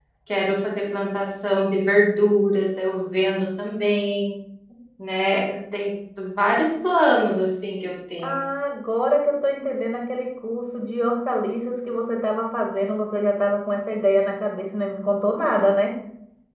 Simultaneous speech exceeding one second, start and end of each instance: none

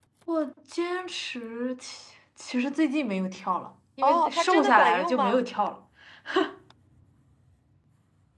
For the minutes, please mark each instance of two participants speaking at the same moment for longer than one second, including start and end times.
4.0-5.4

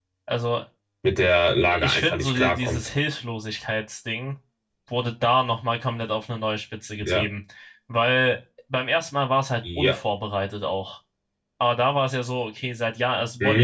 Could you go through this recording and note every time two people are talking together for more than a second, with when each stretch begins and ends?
1.6-2.9

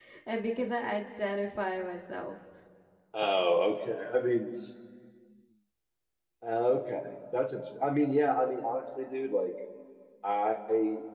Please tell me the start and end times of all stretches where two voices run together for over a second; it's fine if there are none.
none

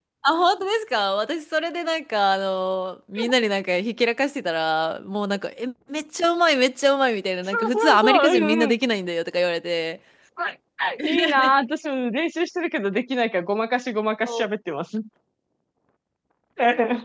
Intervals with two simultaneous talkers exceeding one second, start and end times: 7.5-8.8

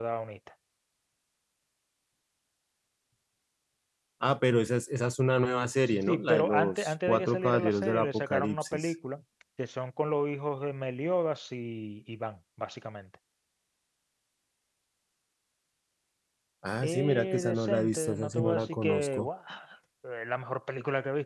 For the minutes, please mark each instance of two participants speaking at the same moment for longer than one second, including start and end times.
6.1-8.9, 16.8-19.3

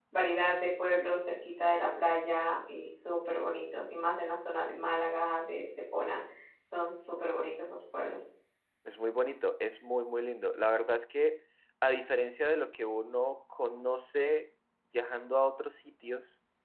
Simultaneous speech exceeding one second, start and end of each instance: none

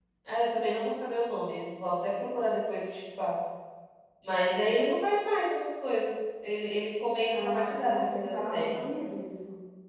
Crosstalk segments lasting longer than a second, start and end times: 7.3-8.8

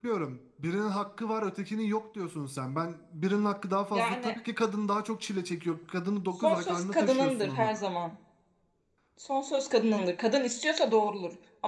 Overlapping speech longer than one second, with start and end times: 6.4-7.7

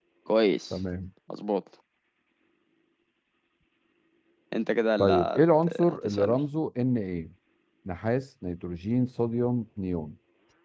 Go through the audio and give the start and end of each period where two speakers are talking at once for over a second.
5.0-6.4

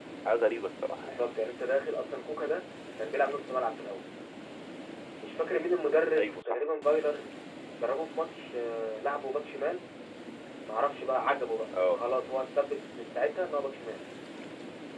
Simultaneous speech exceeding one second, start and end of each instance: none

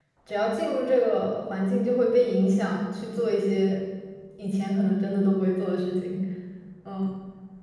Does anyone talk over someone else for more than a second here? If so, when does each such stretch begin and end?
none

